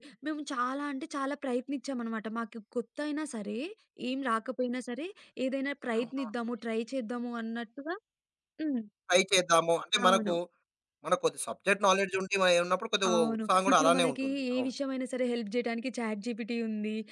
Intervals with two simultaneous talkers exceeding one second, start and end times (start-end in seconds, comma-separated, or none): 13.1-14.7